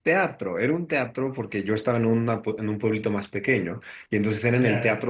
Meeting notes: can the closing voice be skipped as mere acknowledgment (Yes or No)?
Yes